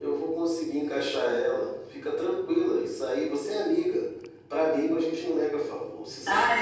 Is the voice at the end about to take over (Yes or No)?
Yes